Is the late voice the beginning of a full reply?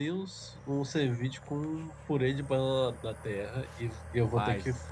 No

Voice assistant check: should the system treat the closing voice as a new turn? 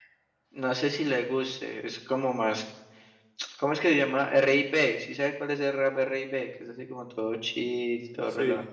Yes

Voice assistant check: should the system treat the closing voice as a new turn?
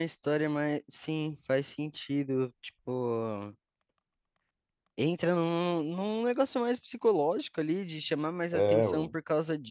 No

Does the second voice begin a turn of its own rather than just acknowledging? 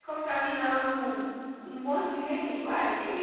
Yes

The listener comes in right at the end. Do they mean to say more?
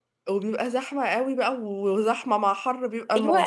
Yes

